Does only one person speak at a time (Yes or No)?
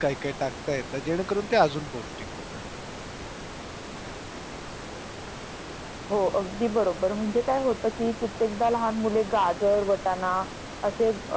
Yes